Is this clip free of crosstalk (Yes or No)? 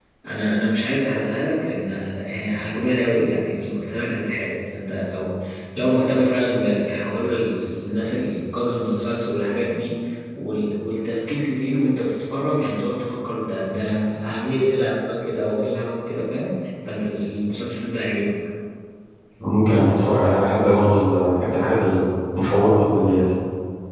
Yes